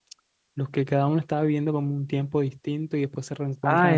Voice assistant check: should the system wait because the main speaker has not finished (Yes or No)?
No